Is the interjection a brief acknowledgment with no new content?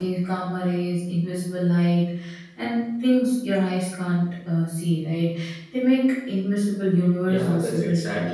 No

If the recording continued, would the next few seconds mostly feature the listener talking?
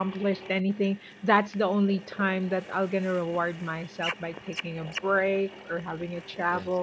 No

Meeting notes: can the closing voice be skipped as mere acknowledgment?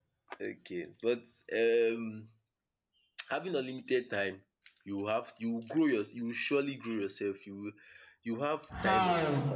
No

